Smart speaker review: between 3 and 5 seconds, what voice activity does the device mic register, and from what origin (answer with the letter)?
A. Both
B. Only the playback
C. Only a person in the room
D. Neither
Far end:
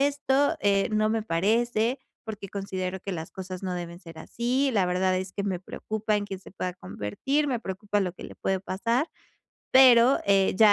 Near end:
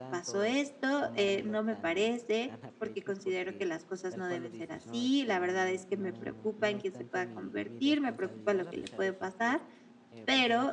A